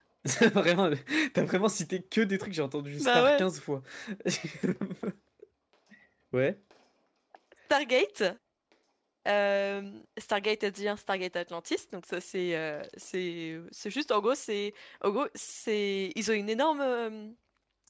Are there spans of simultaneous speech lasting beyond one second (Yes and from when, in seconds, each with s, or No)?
No